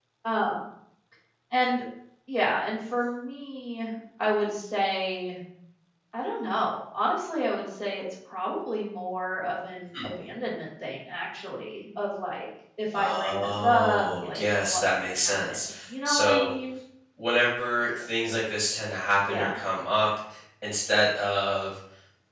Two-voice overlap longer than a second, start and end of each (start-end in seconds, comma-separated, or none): 12.9-15.6